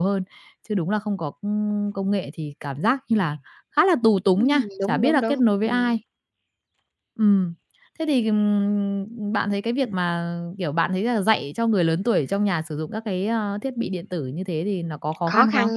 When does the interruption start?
4.4 s

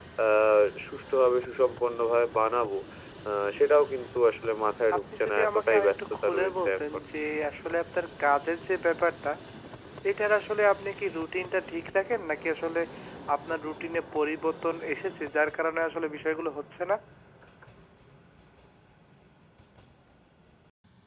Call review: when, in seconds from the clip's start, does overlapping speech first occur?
4.9 s

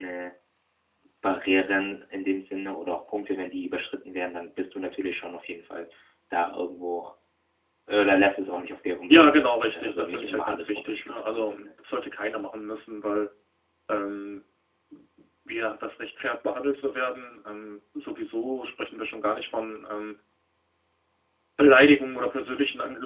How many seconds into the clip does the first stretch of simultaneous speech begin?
9.1 s

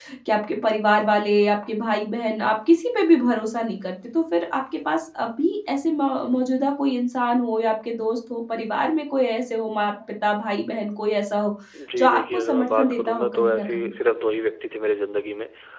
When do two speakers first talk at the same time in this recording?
12.0 s

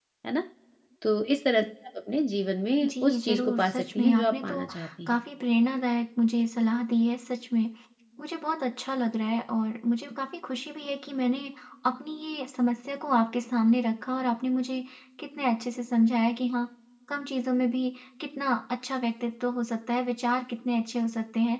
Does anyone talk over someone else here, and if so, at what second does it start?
2.8 s

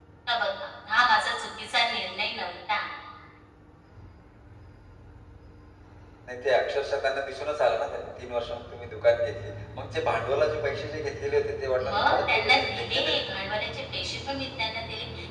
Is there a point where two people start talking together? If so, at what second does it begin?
11.8 s

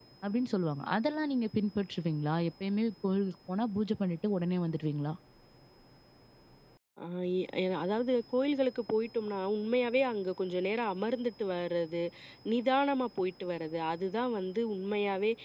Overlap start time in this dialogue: none

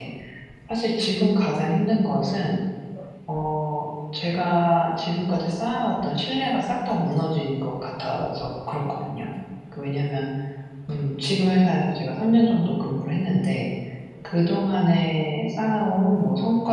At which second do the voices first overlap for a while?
none

